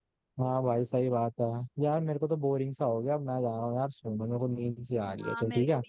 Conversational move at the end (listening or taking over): taking over